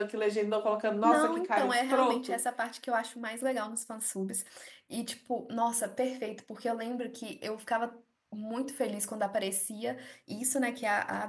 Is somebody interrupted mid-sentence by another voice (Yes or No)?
Yes